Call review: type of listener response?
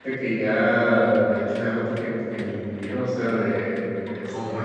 listening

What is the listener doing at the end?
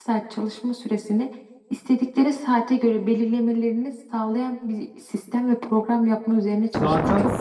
taking over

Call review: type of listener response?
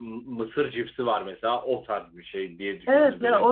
taking over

